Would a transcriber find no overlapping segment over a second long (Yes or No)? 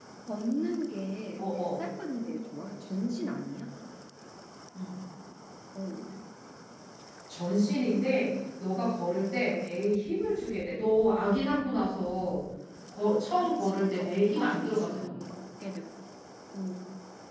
No